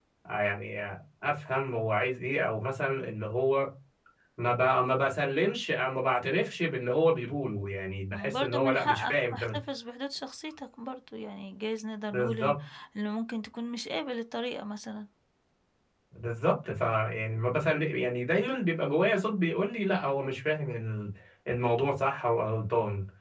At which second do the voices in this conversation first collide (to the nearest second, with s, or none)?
8 s